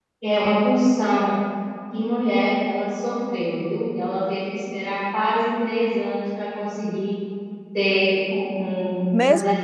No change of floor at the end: No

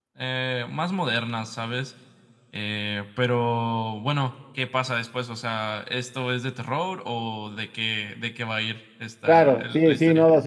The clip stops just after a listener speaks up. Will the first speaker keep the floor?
No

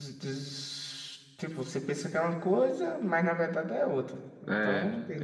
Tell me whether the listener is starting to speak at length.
Yes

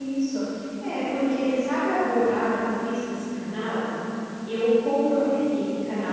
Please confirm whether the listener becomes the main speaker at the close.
No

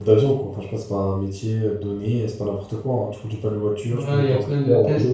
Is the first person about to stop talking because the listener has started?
Yes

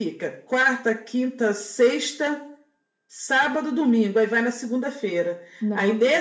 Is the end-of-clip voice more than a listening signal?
No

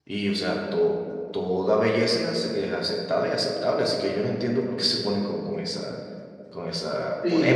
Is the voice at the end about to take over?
Yes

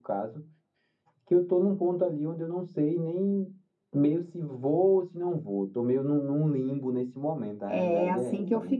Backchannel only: No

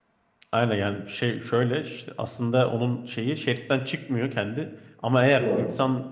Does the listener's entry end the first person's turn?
No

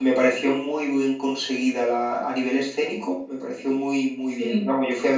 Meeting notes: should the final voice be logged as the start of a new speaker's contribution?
No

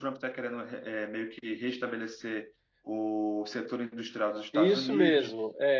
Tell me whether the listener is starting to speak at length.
Yes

